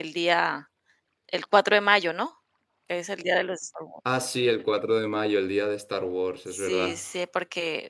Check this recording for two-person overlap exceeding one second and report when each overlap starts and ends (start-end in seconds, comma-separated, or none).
none